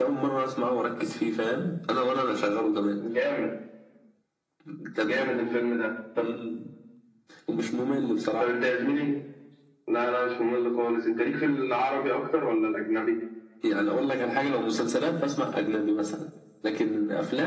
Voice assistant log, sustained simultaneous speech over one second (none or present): none